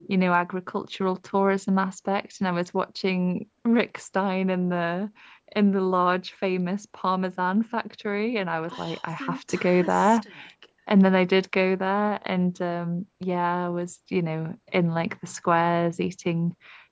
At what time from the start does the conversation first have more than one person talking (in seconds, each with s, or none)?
8.6 s